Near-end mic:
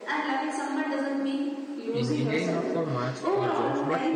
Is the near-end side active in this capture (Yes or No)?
Yes